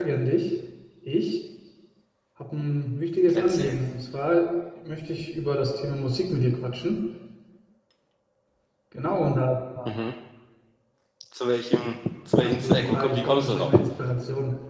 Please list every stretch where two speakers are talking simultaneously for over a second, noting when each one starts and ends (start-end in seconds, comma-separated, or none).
12.4-13.7